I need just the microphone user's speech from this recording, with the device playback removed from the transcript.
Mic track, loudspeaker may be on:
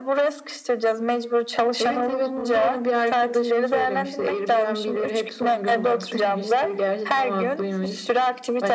none

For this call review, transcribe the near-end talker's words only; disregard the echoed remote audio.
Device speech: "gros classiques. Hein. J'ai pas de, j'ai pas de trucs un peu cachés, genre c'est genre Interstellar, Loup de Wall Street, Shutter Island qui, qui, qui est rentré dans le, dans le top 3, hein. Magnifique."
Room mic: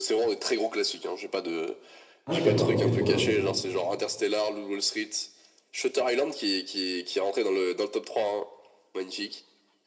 Ah, je sais pas, ok, trop bien.

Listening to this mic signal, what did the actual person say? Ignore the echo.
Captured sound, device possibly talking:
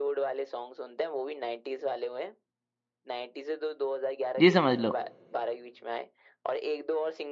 ये समझ लो

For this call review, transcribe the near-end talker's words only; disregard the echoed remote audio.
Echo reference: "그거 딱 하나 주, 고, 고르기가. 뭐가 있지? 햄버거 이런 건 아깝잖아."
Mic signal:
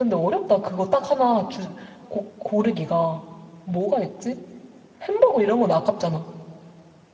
none

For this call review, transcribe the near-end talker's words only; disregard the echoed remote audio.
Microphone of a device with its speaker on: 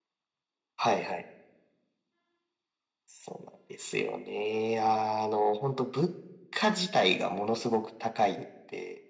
none

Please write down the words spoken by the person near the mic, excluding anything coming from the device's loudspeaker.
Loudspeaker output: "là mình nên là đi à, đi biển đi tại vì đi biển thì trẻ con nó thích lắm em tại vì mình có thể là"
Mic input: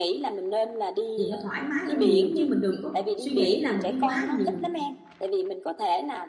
thì nó thoải mái hơn nhiều chứ mình đừng có suy nghĩ là mình đi quá nhiều mình

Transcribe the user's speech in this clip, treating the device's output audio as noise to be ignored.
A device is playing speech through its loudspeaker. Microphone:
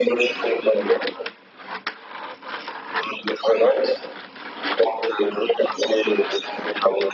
none

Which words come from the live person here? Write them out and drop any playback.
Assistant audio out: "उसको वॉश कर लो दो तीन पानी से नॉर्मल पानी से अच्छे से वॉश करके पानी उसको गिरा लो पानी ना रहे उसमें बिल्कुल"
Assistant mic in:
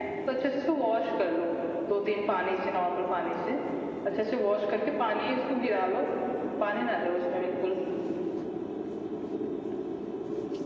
none

